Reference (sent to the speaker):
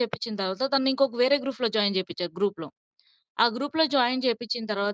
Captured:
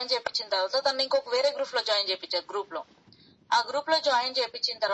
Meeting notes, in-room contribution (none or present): none